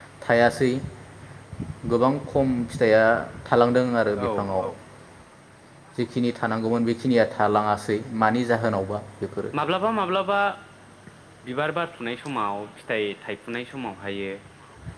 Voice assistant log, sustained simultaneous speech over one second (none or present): none